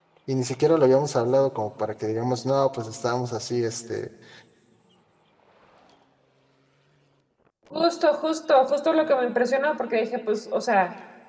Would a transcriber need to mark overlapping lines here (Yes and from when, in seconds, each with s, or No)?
No